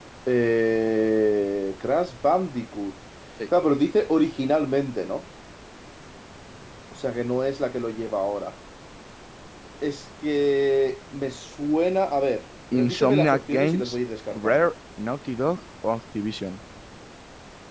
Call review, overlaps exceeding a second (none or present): present